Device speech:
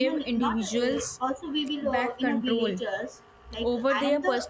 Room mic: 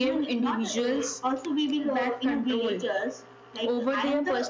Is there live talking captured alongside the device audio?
No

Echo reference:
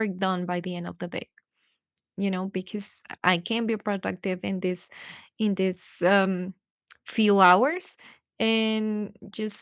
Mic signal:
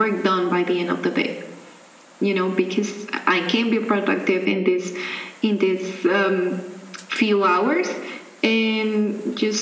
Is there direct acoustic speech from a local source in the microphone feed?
No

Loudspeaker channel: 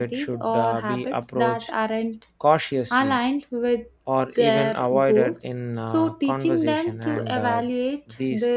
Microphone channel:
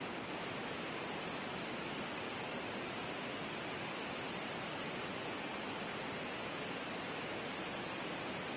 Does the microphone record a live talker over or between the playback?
No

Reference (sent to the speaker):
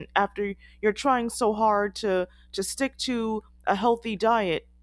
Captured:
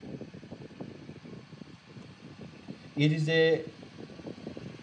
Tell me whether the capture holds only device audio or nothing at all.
No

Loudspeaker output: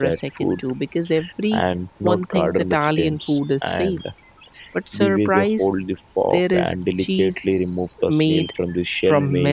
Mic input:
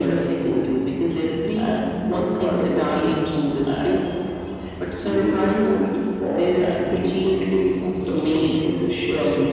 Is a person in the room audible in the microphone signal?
No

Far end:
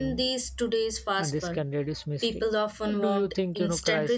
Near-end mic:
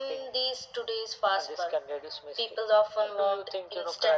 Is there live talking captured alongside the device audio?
No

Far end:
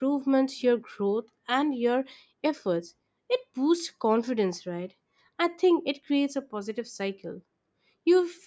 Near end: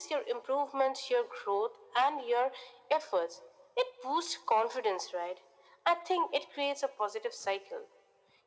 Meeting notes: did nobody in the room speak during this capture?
Yes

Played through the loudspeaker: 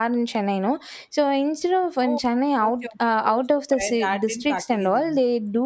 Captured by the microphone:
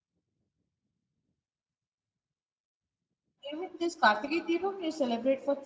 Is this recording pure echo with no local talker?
No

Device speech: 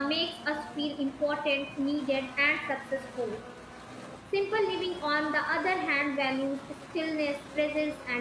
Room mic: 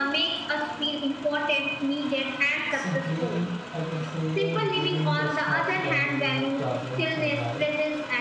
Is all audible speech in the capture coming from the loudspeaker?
No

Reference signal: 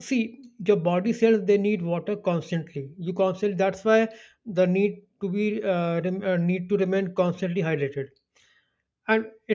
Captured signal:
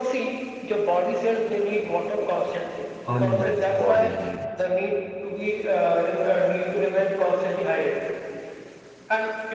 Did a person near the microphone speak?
Yes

